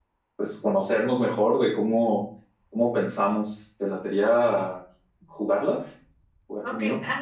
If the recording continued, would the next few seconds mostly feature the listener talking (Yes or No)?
Yes